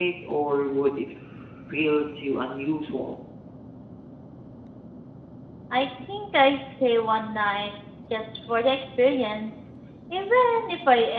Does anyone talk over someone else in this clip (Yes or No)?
No